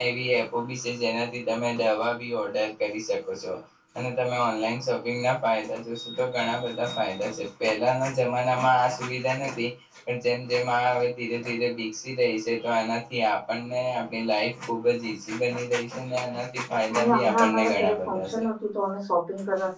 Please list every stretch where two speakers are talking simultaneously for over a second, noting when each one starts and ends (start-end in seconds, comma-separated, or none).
16.9-18.4